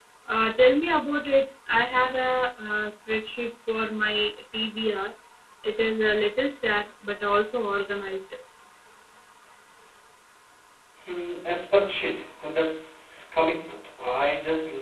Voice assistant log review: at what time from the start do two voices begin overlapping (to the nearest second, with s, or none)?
none